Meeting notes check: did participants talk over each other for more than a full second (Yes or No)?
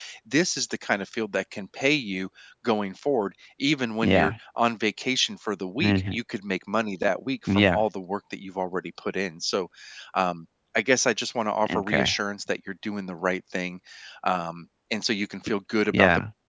No